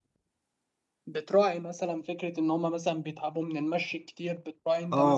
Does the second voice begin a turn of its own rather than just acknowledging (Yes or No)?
Yes